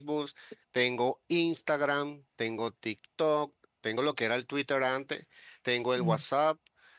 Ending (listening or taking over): listening